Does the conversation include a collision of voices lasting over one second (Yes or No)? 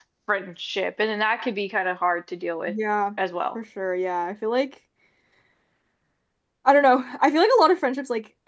No